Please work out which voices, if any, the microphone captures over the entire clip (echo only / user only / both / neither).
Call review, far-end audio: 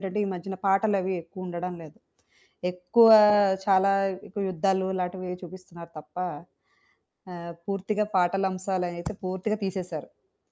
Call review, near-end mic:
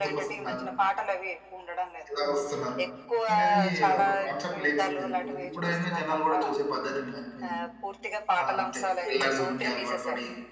both